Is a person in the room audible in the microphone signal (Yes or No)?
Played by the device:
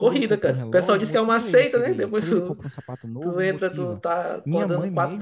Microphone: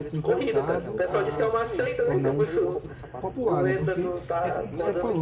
Yes